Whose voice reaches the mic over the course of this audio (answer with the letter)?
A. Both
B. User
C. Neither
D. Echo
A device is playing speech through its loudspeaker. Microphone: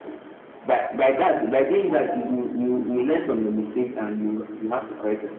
D